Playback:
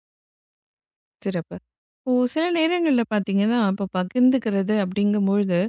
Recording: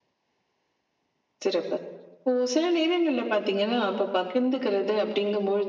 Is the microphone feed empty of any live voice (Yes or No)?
Yes